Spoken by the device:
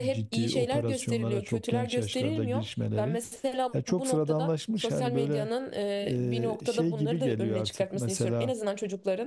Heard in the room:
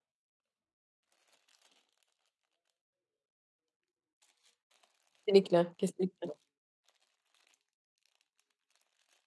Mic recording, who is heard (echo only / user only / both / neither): user only